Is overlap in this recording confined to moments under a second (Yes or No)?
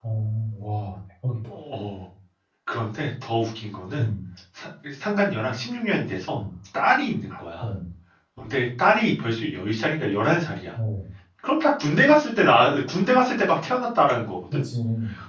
Yes